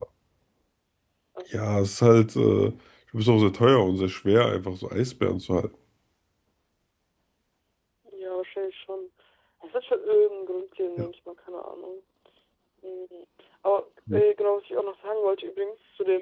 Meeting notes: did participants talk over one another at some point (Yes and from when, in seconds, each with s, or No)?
No